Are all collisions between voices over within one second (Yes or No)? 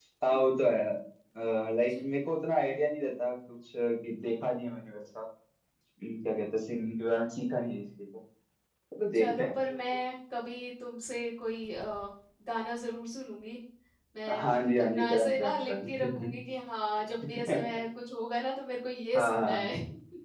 No